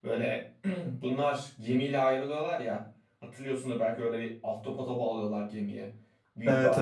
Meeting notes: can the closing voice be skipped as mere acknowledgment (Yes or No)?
No